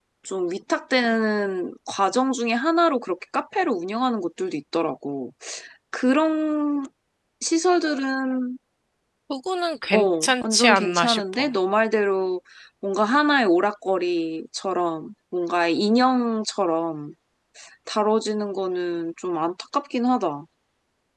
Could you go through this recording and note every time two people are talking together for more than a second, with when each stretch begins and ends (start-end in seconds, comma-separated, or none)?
9.9-11.4